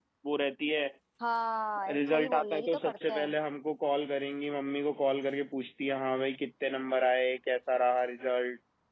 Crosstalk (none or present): present